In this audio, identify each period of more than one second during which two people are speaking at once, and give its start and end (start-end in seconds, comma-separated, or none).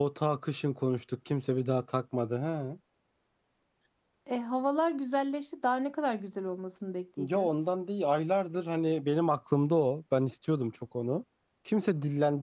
none